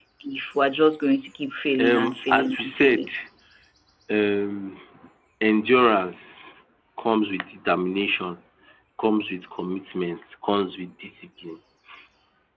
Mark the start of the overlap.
2 s

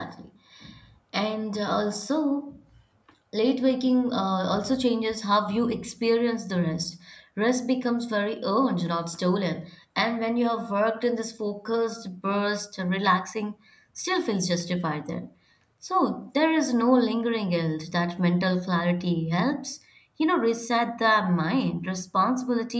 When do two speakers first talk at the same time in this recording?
none

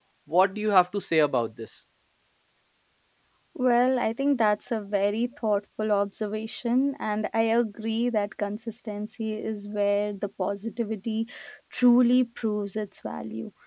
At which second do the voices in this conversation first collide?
none

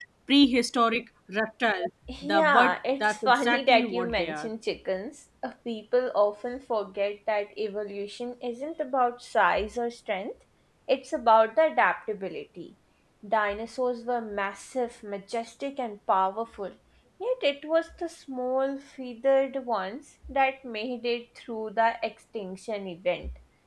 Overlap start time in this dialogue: 2 s

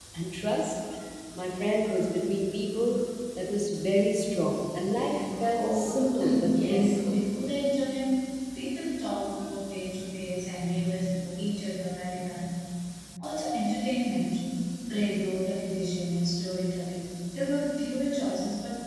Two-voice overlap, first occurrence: 6 s

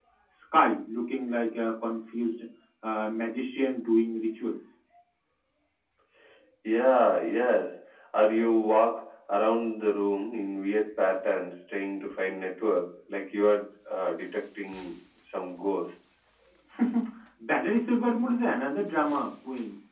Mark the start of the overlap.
none

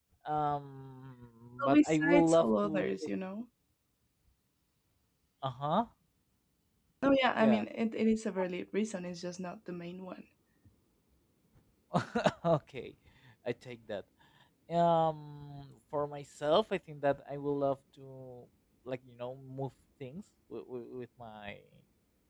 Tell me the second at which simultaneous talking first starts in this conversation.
2 s

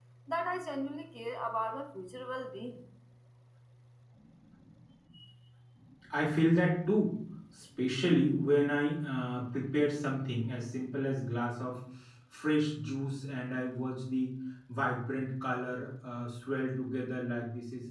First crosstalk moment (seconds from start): none

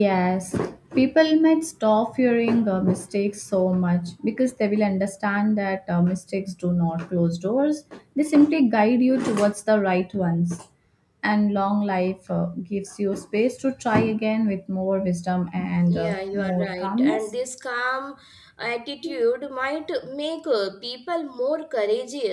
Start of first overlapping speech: 16 s

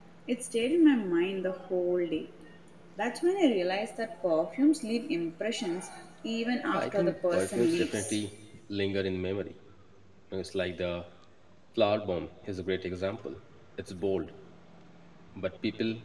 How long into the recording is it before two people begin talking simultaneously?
7 s

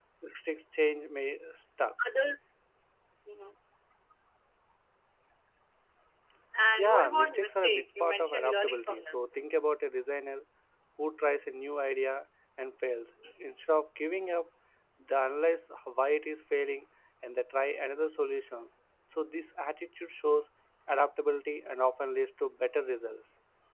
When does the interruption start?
7 s

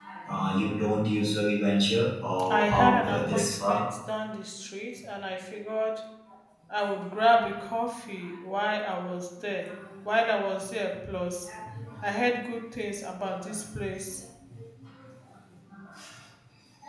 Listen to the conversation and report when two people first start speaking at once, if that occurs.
2 s

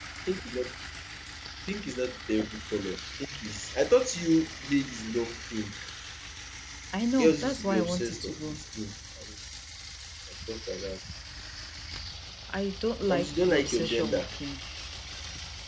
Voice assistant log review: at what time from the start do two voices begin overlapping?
7 s

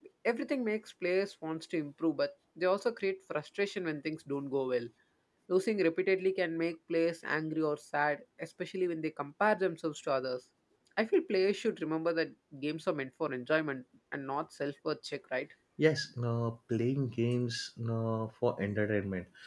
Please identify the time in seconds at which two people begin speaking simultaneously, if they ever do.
none

